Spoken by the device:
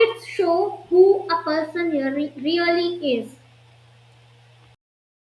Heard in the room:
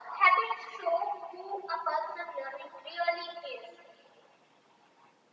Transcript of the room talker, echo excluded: none

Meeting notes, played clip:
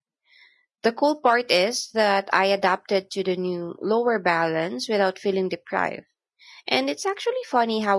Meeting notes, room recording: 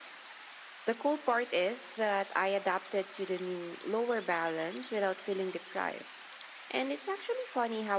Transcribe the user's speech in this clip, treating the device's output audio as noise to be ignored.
none

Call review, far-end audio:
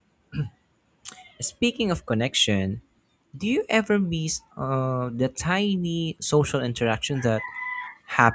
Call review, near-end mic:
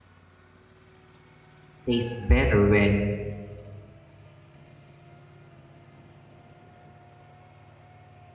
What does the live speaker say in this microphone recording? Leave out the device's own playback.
taste better when

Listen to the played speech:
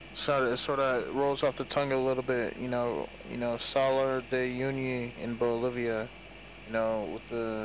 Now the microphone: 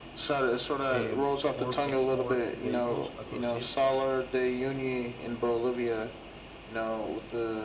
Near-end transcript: uh, four x four vehicles across it,

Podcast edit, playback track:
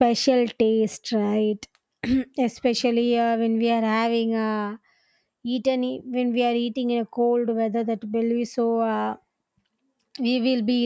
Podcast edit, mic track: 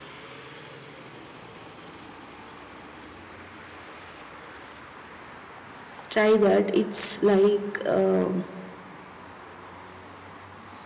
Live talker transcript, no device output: try that it's like um,

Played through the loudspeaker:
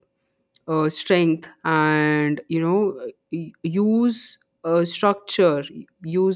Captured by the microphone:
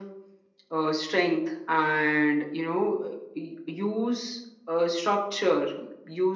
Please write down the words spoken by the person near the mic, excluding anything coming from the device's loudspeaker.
none

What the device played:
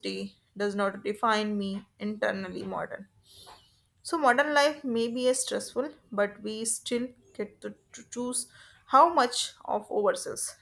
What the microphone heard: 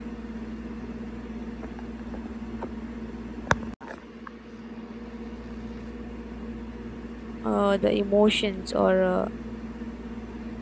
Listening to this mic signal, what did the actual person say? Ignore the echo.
uh, the emotions or uh,

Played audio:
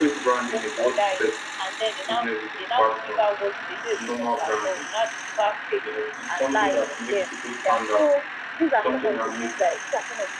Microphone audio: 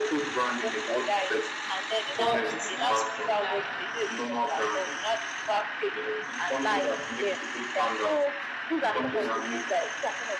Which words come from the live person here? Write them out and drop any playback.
But it's not full line.

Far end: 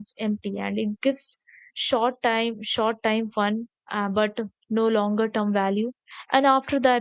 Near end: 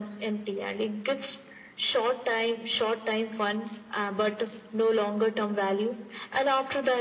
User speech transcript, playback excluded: none

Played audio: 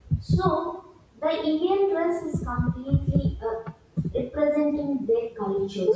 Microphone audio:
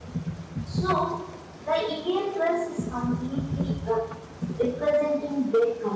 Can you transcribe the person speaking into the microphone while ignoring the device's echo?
none

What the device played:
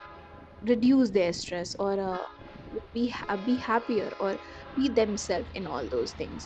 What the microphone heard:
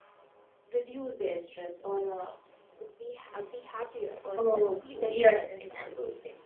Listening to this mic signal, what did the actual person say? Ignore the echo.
Oh, yes, yes.

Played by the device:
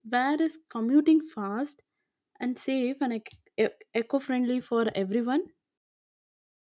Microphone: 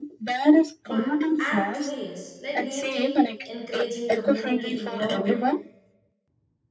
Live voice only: But I'm curious, like do you think encouraging community involvement

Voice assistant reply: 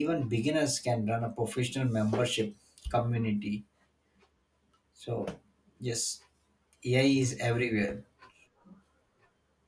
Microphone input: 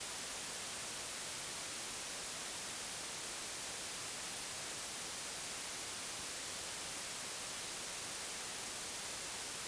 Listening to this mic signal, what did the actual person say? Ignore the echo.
none

